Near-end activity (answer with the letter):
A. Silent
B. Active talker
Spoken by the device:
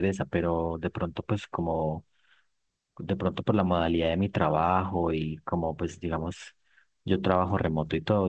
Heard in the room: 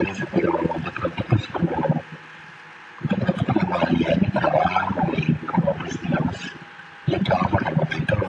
A